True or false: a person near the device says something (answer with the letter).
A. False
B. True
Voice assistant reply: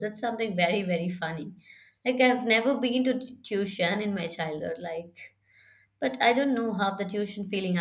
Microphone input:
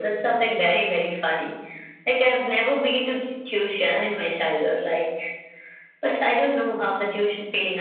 A